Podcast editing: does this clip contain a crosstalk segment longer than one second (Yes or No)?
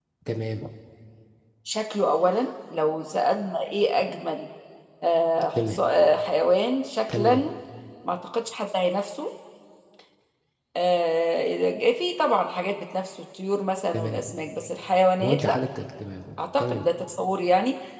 No